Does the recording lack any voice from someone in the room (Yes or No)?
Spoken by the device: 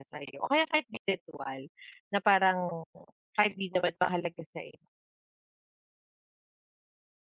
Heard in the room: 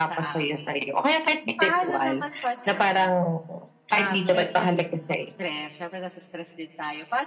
No